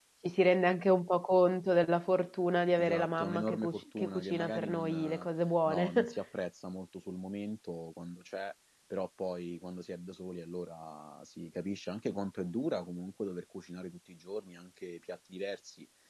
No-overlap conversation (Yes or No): No